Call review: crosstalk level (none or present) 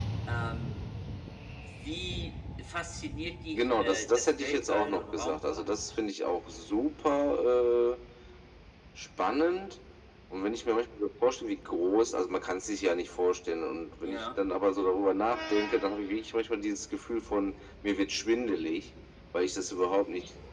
present